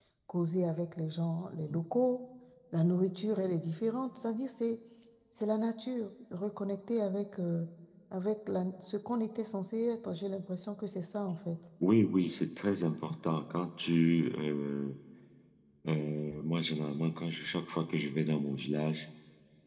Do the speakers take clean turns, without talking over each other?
Yes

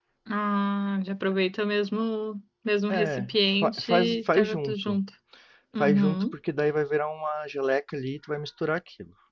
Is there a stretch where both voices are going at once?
Yes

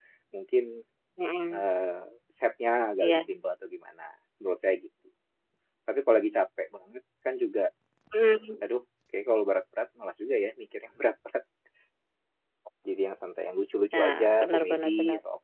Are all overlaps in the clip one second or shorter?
No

